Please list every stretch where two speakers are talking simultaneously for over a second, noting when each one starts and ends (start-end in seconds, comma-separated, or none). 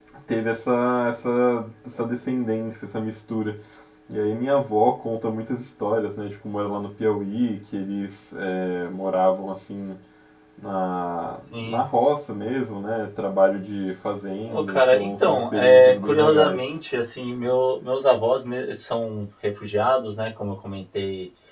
14.5-16.6